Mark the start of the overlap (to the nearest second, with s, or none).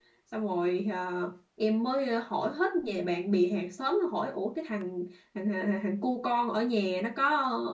none